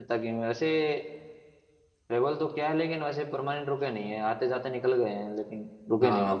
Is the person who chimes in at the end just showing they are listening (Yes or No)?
No